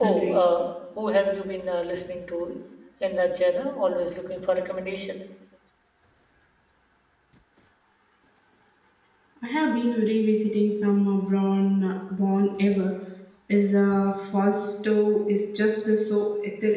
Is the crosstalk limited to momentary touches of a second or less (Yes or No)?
Yes